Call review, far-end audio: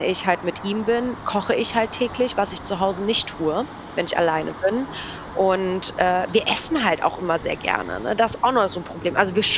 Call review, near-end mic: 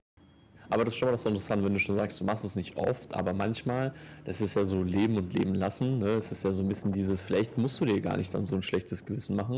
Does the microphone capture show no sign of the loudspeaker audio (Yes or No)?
Yes